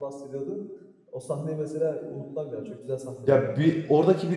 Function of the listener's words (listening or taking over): taking over